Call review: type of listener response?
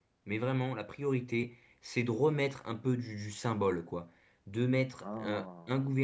listening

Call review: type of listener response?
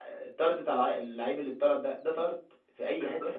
taking over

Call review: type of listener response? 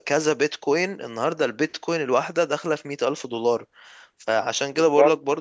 listening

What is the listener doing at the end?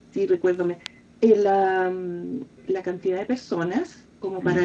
listening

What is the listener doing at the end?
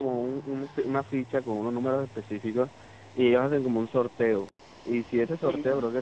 listening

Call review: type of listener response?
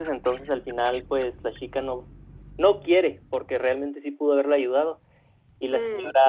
listening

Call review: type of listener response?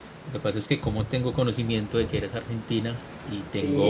listening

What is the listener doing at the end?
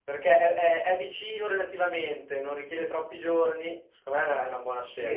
taking over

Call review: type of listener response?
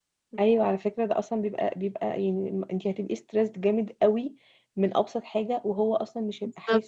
taking over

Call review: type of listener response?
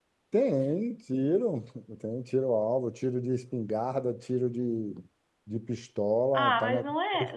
taking over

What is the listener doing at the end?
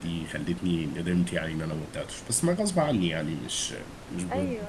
taking over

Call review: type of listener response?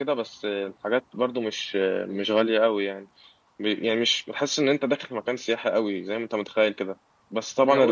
listening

